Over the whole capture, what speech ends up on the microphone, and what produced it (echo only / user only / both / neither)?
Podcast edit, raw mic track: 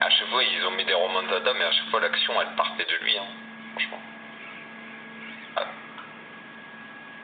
echo only